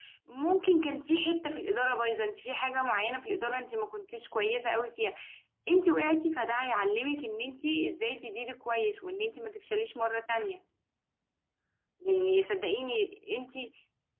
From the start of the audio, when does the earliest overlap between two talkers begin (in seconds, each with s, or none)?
none